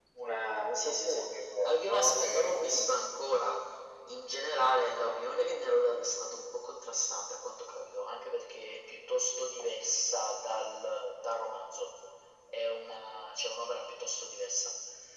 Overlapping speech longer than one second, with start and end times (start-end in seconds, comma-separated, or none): 1.6-2.9